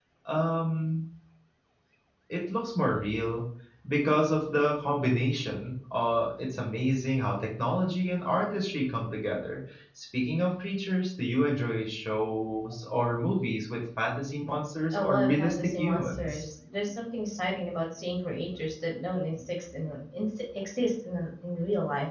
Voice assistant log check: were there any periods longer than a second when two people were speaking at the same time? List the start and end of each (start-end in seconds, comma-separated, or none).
14.9-16.4